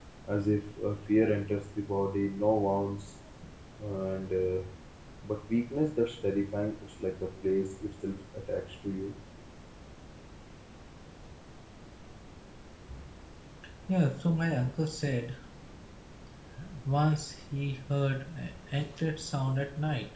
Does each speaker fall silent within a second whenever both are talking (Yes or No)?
Yes